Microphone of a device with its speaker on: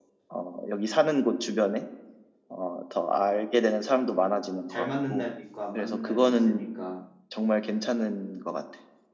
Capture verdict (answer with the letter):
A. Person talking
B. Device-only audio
A